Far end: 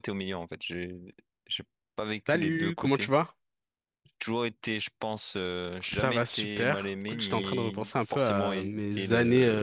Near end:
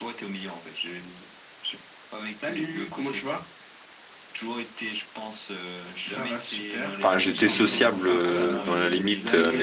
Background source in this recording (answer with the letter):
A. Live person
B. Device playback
B